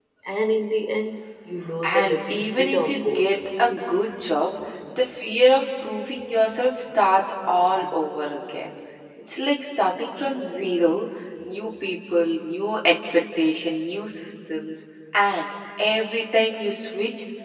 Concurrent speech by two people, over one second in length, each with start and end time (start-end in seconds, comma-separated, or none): 1.8-3.4